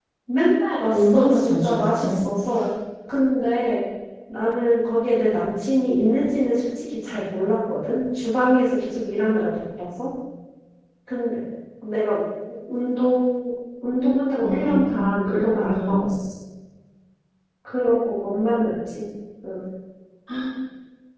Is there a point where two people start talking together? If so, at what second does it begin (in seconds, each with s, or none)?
0.9 s